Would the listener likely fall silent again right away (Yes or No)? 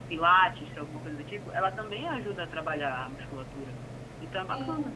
No